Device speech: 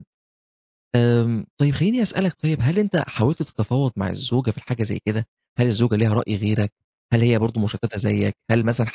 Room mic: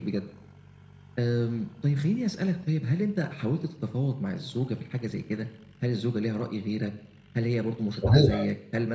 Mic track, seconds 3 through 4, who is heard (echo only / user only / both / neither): echo only